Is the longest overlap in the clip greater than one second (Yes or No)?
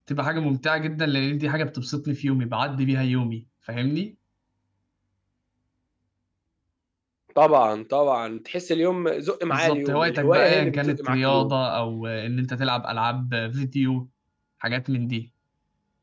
Yes